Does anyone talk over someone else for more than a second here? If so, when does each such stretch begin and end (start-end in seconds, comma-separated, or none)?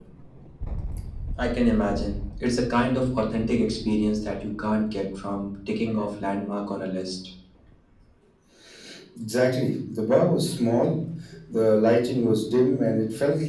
none